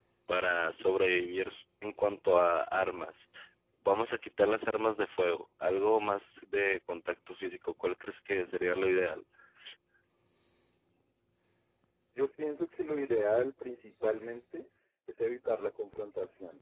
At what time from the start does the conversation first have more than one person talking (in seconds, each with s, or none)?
none